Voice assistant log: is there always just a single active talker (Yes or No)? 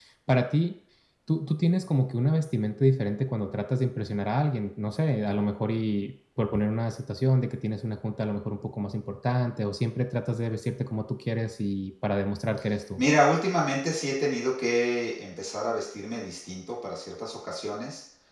Yes